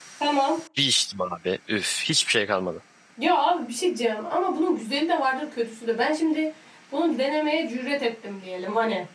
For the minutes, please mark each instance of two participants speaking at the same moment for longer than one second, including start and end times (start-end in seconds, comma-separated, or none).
none